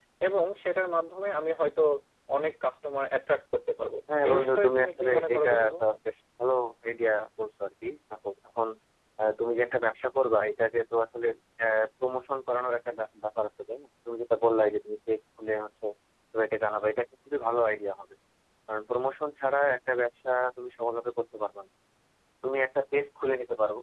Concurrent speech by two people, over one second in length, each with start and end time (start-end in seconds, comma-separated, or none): 4.2-5.7